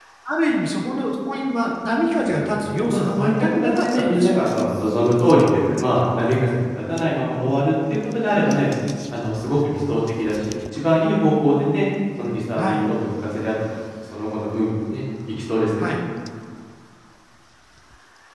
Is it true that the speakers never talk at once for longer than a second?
No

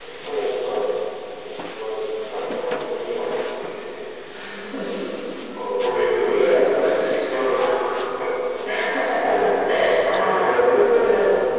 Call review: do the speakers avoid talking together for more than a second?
No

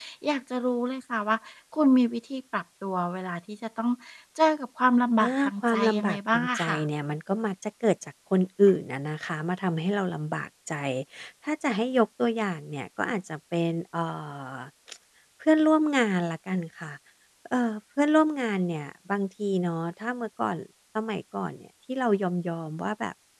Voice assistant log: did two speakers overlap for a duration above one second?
Yes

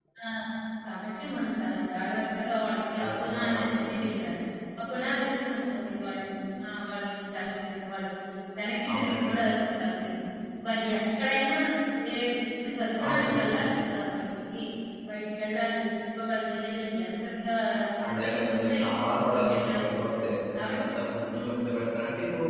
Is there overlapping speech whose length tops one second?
Yes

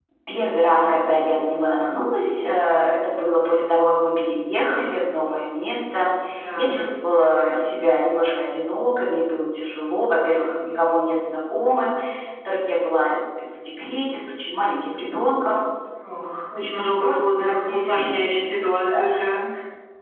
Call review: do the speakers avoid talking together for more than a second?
No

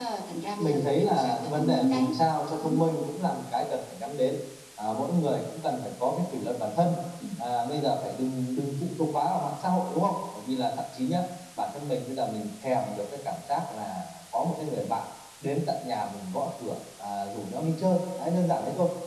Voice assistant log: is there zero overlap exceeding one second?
No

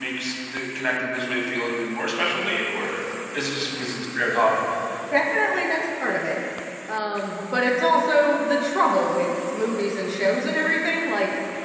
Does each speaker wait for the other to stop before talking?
Yes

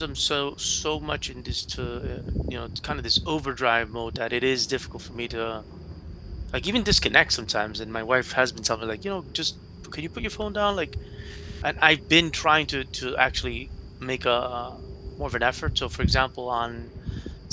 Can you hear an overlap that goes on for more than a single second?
No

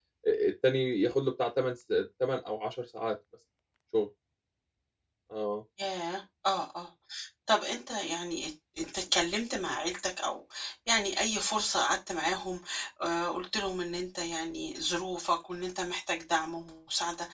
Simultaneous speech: No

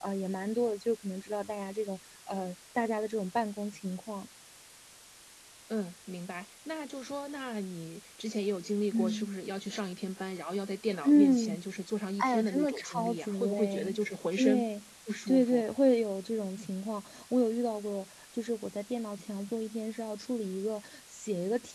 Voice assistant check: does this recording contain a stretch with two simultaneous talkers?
Yes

